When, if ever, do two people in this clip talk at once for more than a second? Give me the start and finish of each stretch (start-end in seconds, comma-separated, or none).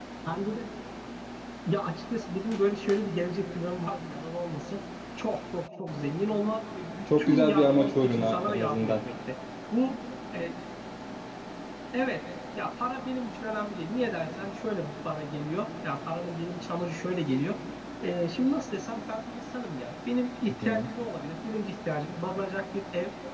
7.0-8.9